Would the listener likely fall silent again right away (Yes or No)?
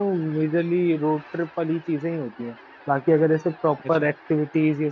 Yes